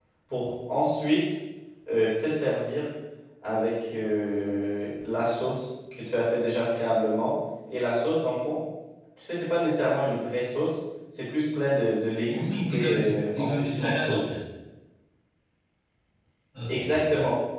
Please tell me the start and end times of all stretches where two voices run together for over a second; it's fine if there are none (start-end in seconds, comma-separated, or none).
12.3-14.2